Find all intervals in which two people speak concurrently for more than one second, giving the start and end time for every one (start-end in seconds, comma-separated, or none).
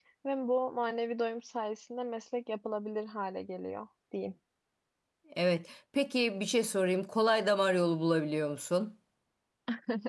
none